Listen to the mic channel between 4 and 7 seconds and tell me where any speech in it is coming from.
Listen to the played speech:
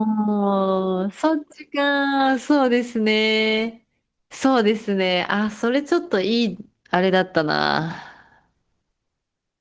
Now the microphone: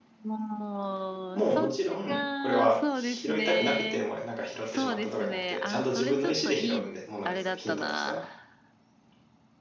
both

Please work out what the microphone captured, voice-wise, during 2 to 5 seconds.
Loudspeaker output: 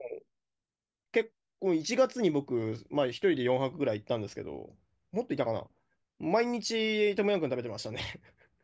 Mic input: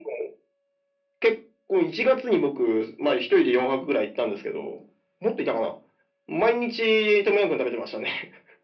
echo only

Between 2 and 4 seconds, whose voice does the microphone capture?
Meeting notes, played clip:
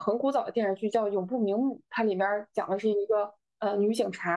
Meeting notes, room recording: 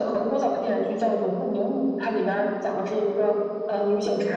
echo only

